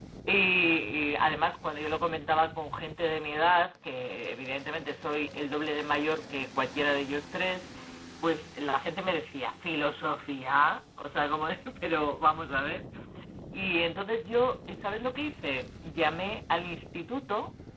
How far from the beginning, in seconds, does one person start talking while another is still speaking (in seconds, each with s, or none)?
none